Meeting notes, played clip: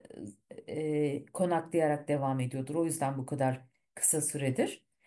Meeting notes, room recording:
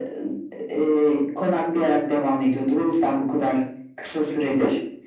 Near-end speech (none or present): none